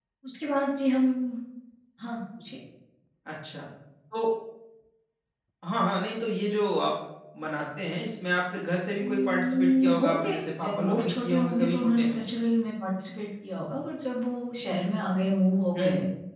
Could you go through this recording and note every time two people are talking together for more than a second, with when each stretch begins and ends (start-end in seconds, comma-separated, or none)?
9.0-12.2